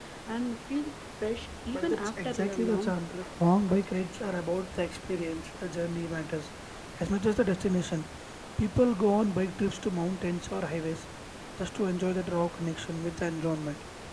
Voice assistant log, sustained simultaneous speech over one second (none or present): present